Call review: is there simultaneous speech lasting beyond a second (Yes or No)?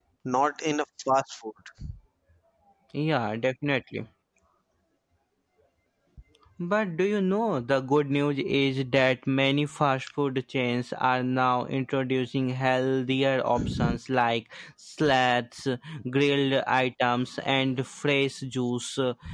No